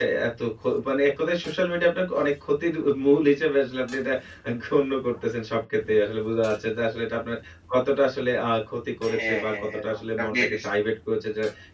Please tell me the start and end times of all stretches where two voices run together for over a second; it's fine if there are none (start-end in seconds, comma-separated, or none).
9.1-10.6